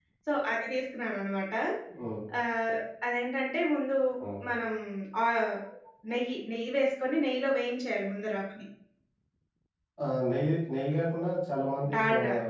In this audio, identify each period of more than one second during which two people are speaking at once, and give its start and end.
none

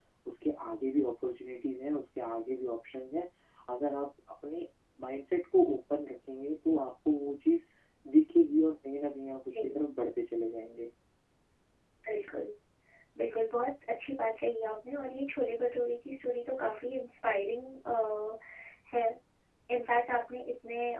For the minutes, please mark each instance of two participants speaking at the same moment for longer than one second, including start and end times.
none

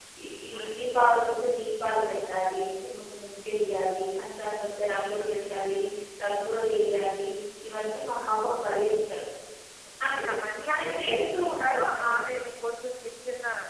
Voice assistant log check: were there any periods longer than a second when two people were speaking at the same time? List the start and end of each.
10.7-12.2

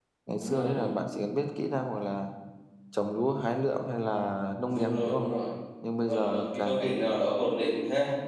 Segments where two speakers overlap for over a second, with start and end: 6.1-7.3

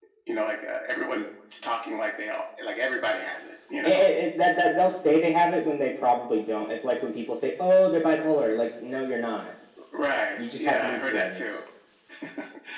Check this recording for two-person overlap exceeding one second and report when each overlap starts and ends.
10.4-11.6

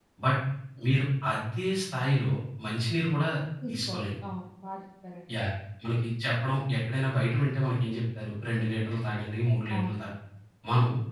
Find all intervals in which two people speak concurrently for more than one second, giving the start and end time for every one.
none

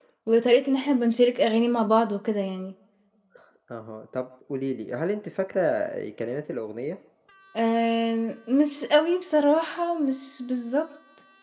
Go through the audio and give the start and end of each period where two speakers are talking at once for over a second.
none

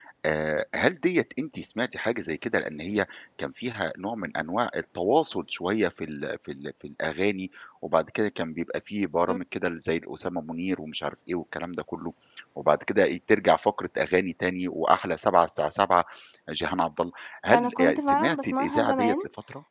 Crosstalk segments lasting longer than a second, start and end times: 17.5-19.1

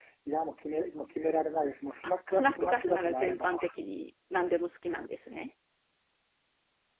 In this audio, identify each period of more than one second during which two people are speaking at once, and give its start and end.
2.3-3.6

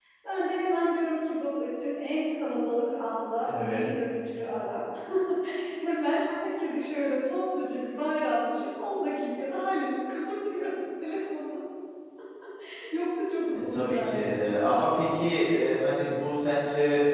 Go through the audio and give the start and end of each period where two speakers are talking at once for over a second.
13.7-15.0

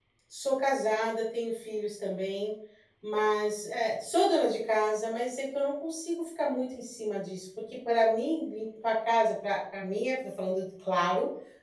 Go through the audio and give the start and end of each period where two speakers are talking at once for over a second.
none

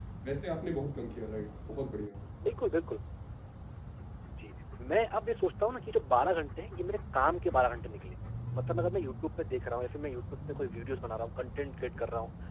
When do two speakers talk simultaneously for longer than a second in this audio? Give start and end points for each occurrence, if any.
none

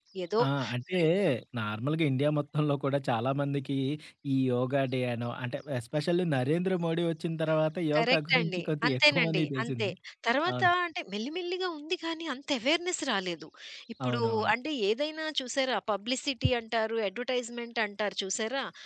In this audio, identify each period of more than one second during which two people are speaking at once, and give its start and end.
8.0-9.9

